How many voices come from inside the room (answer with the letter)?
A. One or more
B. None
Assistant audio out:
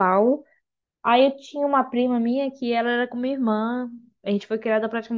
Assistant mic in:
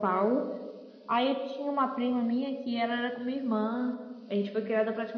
B